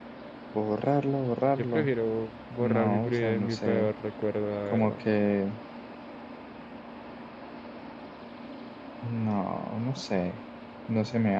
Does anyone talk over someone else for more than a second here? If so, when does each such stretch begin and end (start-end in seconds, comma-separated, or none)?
2.6-3.9